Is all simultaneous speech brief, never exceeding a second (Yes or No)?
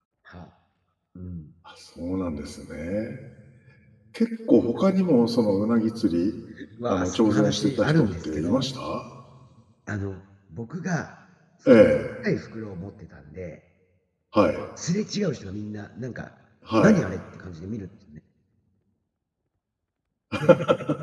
No